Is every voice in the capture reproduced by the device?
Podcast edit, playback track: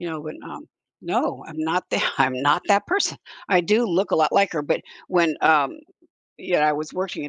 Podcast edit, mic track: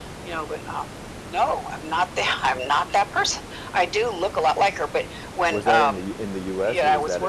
No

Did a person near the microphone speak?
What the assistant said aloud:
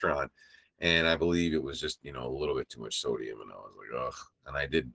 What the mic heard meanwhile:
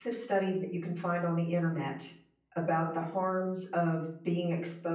Yes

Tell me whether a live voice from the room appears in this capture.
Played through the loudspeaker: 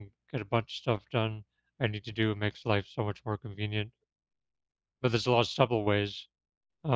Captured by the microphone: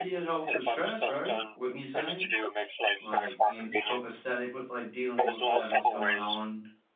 Yes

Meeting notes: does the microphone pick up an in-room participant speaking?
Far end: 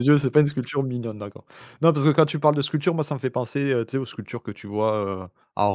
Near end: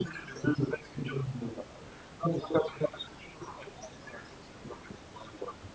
No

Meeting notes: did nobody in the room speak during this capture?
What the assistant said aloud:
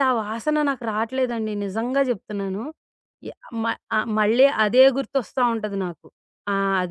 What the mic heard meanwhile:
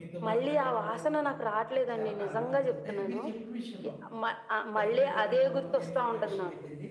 No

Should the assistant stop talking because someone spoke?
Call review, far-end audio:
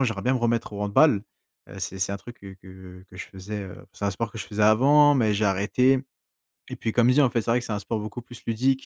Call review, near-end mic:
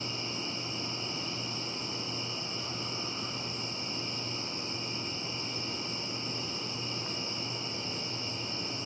No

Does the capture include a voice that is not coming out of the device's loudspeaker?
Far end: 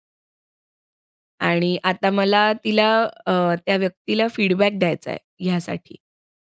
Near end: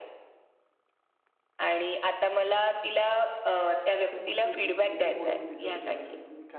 Yes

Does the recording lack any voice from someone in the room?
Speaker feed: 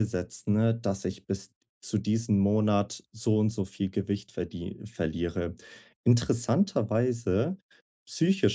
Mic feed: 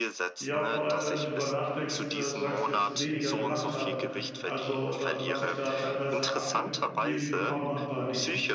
No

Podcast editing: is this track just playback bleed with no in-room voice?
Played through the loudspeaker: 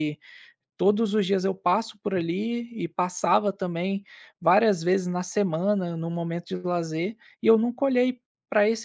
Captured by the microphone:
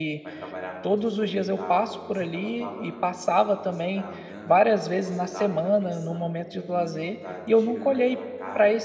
No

